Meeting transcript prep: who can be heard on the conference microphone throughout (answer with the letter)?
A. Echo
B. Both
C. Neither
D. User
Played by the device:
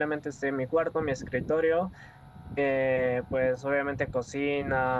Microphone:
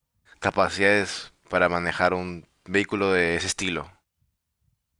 D